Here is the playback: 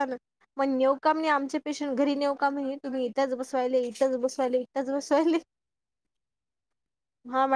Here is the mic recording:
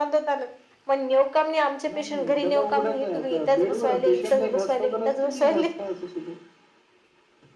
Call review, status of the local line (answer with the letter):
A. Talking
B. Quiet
A